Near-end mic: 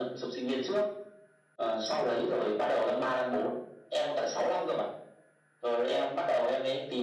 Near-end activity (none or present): none